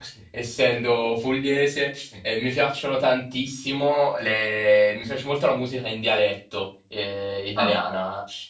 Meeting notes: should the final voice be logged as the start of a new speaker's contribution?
No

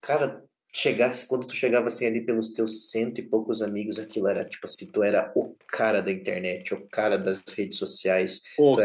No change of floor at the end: Yes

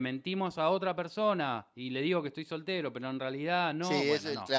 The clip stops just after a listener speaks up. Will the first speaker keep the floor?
No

